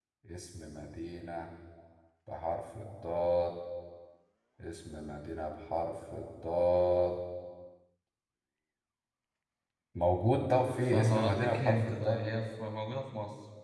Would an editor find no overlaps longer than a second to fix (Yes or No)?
No